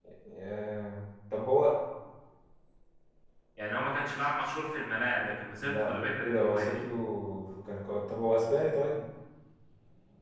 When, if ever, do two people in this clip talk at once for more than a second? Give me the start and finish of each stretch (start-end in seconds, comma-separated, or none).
5.6-6.8